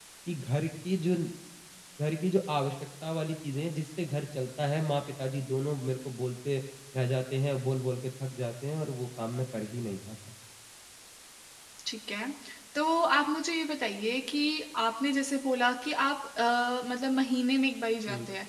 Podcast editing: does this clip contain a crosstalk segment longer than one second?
No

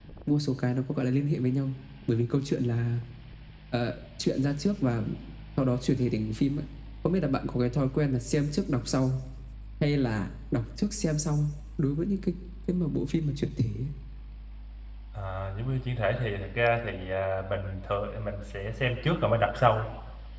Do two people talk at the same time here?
No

